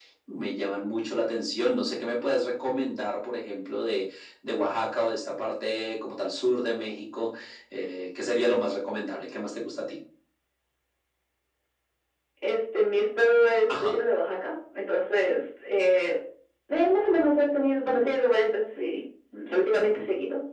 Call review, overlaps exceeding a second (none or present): none